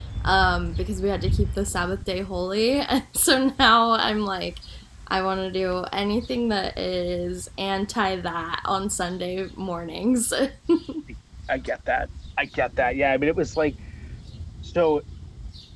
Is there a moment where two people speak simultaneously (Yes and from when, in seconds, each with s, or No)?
No